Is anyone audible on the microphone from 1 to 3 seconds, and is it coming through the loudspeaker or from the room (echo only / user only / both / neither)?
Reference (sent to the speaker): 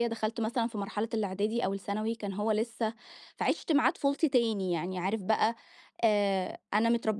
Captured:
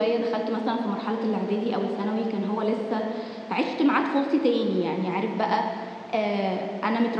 echo only